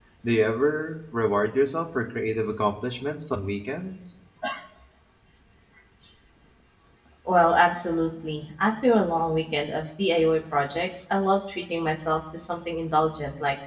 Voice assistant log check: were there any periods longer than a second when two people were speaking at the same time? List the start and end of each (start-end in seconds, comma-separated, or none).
none